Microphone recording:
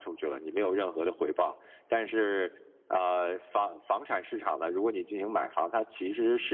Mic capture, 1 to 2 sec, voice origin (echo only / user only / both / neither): echo only